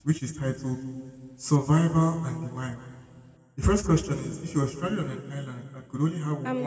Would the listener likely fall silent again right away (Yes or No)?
No